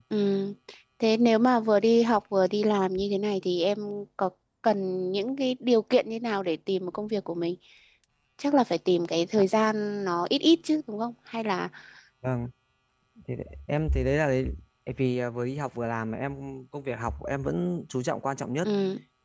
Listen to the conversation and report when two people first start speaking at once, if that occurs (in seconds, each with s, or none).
none